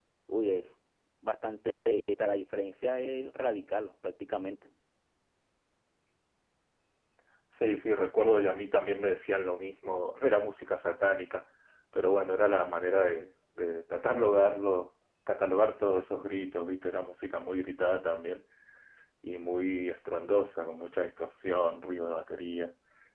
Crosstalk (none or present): none